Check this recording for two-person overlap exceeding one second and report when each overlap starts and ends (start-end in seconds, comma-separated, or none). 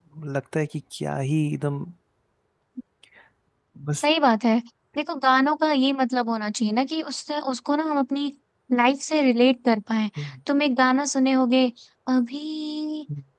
none